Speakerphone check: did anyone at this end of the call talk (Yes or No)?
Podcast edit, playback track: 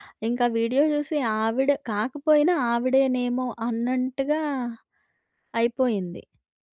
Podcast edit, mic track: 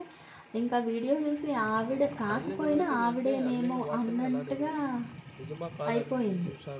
Yes